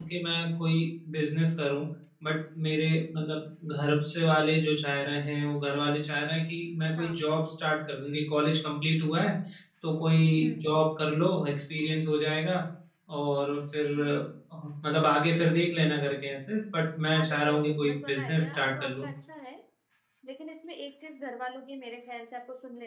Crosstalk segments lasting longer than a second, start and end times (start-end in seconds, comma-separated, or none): 17.1-19.1